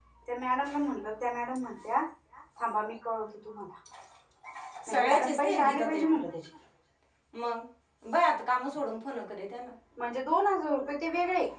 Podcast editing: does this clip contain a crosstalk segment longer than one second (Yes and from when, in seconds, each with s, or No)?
Yes, from 4.9 s